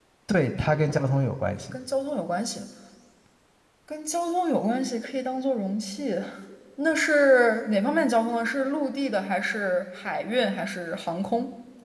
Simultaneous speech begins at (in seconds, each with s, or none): none